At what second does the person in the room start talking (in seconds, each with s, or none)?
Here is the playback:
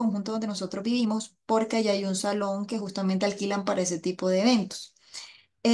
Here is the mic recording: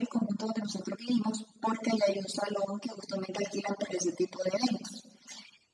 none